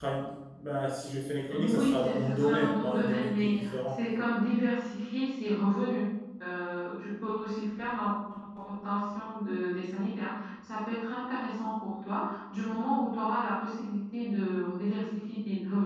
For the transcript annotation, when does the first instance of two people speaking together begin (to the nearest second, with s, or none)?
1 s